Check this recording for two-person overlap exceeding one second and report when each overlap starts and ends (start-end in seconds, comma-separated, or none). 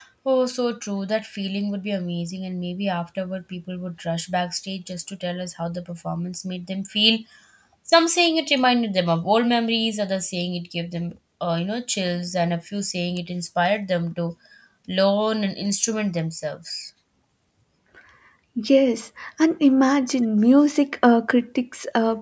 none